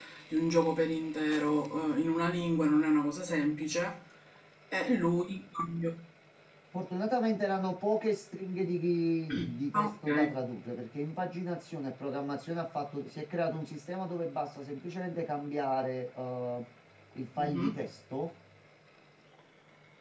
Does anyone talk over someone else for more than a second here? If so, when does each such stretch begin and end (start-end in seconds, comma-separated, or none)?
none